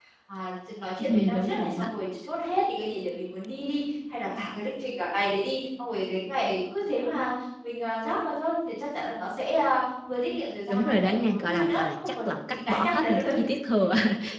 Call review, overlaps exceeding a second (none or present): present